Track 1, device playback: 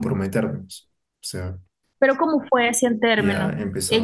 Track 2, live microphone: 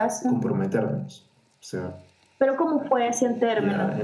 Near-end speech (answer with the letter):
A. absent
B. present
A